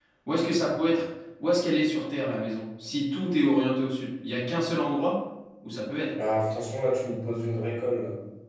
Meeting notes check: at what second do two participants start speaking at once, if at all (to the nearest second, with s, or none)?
none